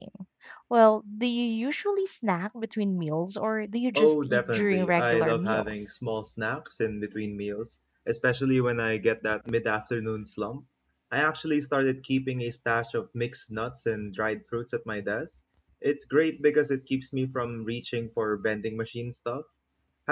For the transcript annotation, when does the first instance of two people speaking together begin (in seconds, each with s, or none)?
4.0 s